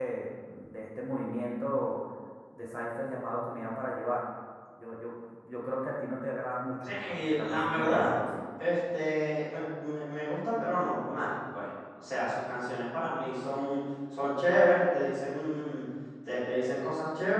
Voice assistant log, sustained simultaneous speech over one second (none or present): present